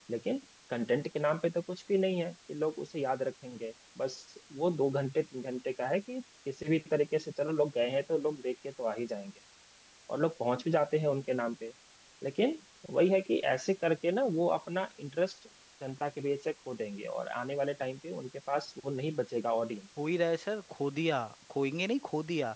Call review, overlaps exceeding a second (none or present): none